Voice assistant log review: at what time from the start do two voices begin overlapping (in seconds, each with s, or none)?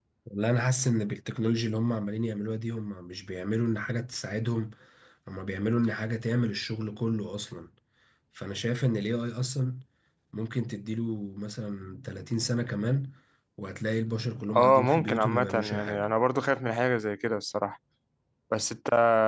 14.5 s